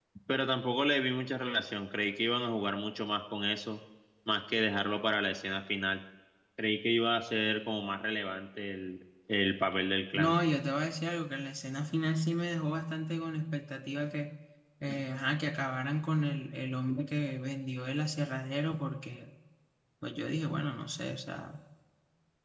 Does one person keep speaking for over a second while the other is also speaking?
No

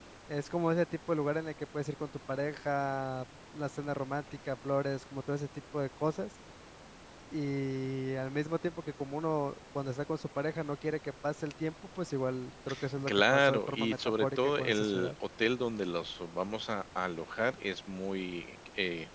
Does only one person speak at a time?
No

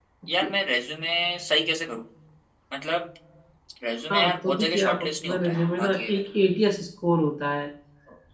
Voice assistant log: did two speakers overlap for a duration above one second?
Yes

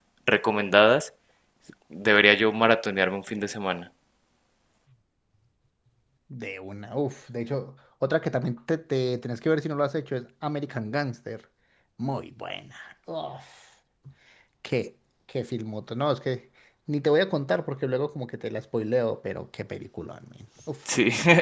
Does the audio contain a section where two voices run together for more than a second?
No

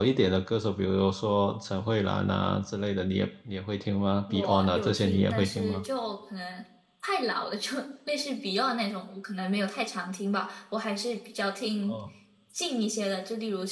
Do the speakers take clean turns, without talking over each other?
No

